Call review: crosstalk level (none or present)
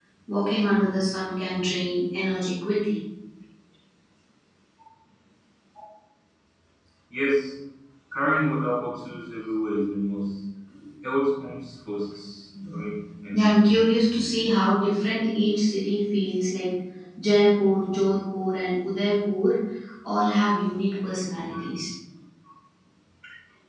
present